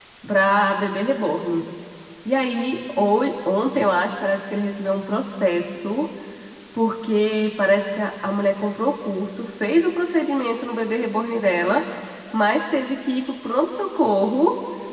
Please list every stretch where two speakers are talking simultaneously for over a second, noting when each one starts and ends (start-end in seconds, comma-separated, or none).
none